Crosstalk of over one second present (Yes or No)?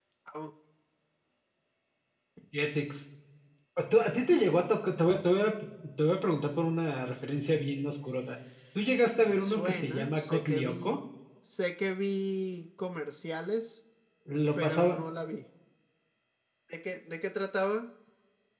Yes